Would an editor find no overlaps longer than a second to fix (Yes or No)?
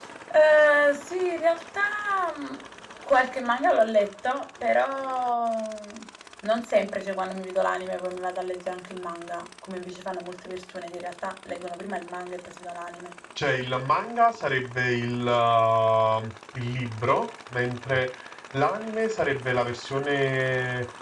Yes